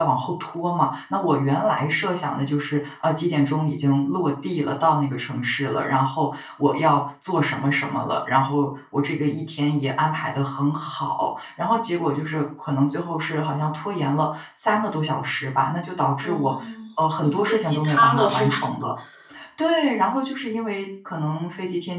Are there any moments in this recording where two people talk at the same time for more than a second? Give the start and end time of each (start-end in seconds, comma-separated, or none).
17.2-18.6